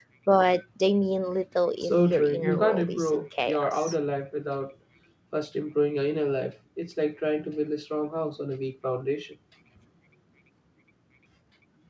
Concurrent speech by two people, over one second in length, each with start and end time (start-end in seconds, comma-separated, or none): 1.8-4.0